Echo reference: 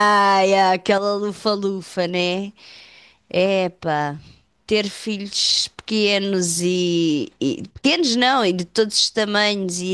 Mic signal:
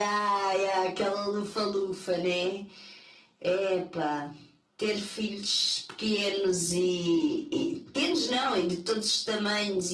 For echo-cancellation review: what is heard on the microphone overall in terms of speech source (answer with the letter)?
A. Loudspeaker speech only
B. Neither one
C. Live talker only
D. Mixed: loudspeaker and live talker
A